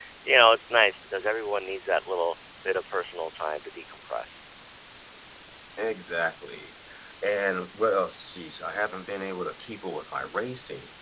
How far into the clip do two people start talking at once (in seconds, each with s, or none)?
none